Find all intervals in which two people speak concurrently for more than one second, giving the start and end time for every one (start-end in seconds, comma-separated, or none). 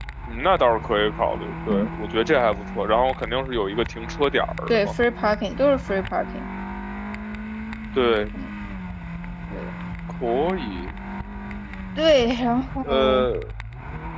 none